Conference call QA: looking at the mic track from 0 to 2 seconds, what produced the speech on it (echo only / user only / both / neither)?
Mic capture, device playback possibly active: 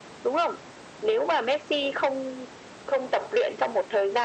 echo only